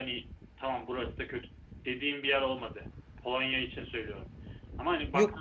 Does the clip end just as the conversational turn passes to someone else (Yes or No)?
Yes